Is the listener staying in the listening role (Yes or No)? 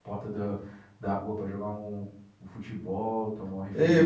No